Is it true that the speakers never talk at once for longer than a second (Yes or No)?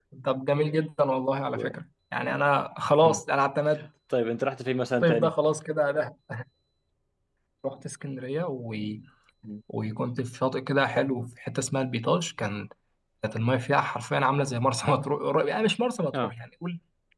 Yes